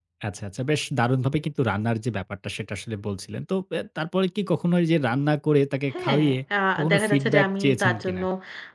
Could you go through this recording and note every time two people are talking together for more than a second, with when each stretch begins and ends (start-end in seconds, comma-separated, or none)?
6.9-8.2